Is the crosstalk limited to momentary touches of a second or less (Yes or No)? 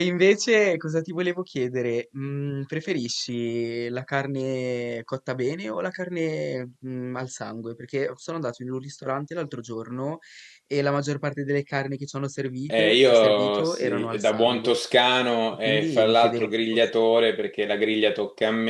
No